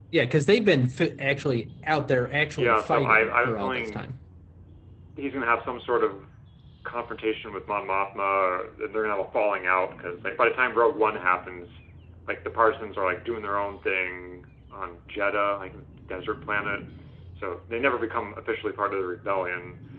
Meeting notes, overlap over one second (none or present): present